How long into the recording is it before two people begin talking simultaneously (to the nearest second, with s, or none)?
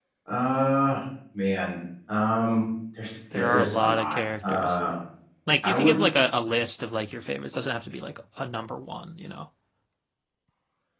3 s